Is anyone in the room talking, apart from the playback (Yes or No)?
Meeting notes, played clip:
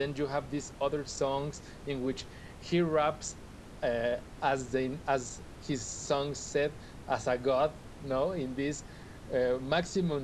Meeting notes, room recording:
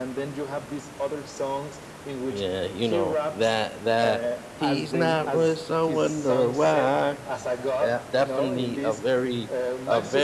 Yes